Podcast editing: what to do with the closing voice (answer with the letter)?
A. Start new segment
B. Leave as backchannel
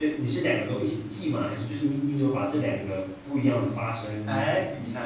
A